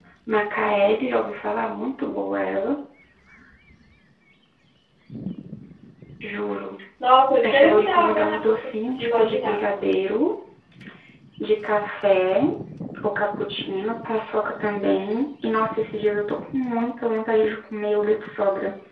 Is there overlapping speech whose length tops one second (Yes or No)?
Yes